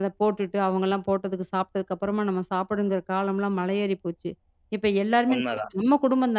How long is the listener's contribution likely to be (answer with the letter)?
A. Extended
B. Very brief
B